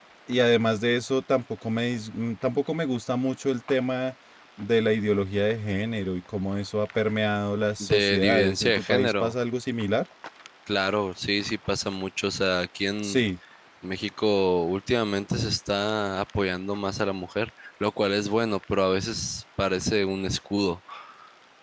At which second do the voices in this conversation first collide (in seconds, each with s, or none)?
7.8 s